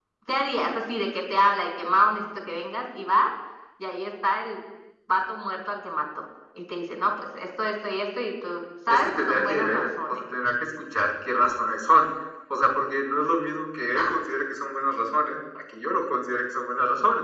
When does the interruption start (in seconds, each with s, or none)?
8.9 s